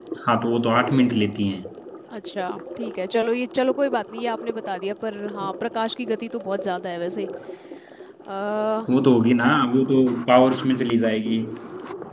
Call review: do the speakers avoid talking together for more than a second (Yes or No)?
Yes